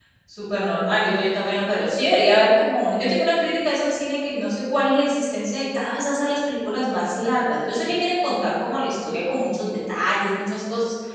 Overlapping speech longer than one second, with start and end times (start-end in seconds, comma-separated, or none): none